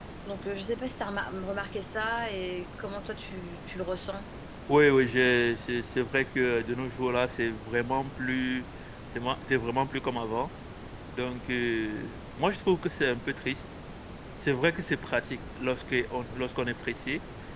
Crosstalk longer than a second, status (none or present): none